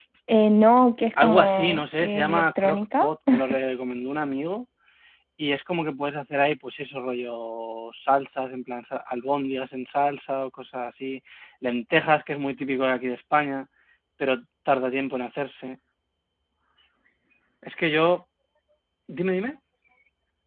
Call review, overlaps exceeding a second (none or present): present